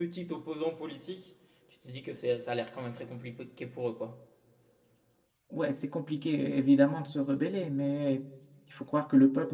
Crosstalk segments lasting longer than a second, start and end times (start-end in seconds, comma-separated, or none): none